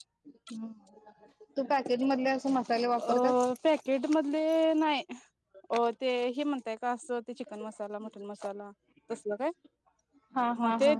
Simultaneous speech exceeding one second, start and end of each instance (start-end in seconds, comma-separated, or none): none